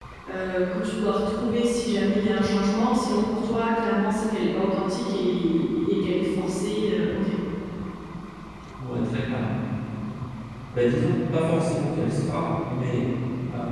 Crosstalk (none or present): none